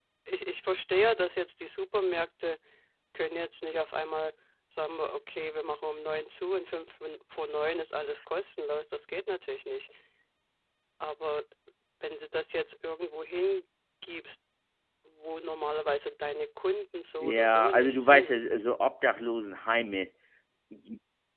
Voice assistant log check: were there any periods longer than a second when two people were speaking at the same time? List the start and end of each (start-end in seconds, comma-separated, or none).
17.2-18.4